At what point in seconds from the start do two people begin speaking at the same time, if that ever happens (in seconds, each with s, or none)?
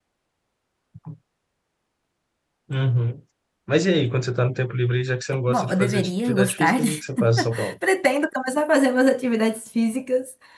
5.5 s